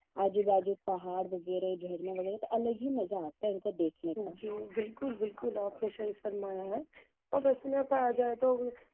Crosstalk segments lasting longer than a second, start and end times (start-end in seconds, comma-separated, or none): none